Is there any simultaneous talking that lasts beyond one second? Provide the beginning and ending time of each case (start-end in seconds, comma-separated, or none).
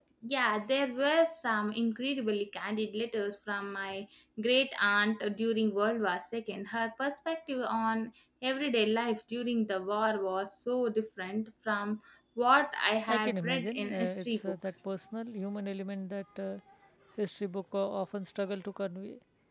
13.1-14.7